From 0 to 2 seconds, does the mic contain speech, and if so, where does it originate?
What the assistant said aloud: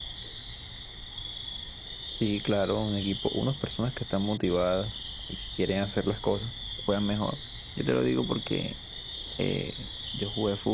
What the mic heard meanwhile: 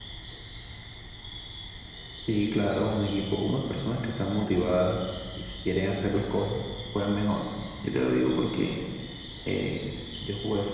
neither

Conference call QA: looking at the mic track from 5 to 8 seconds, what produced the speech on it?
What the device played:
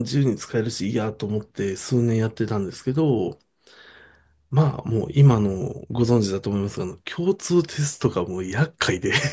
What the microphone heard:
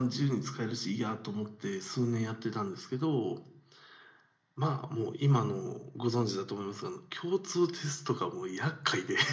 echo only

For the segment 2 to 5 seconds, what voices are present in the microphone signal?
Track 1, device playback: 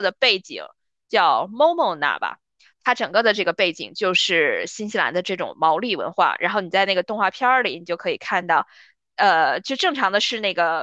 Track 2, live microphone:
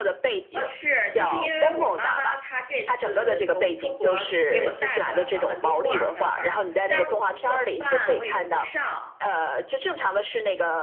both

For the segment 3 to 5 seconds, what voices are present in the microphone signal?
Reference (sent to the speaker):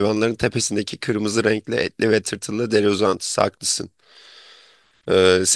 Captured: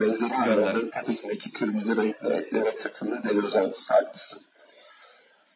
echo only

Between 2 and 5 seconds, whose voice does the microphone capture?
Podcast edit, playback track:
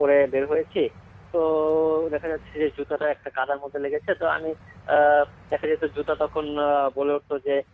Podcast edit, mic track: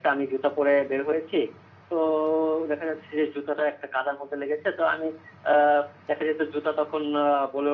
echo only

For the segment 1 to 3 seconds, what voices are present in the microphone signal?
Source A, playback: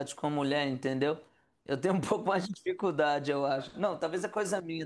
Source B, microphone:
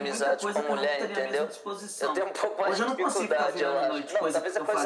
both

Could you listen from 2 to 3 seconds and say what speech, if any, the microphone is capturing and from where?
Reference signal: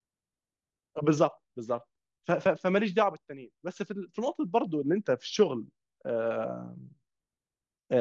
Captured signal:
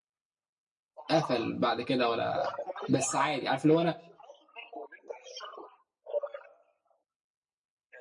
both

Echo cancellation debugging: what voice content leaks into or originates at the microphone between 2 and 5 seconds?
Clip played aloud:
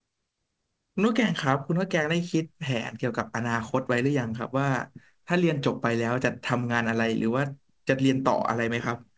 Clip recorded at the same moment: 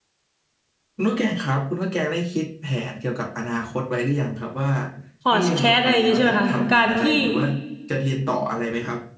echo only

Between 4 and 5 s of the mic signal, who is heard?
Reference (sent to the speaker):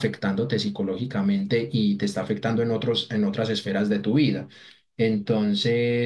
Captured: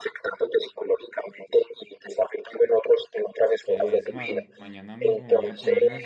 both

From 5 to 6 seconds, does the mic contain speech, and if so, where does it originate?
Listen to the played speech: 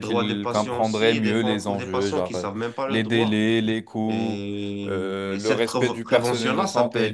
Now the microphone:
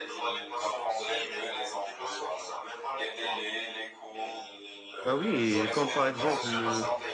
both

